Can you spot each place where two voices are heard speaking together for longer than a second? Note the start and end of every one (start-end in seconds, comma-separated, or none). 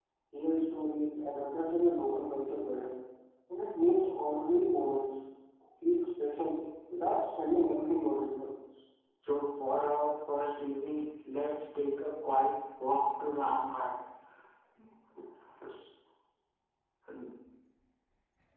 none